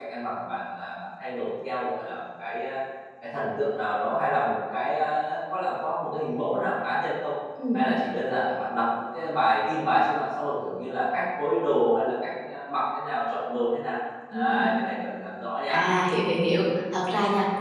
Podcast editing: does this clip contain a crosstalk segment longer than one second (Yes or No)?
No